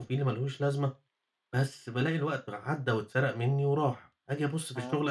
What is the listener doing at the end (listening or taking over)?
listening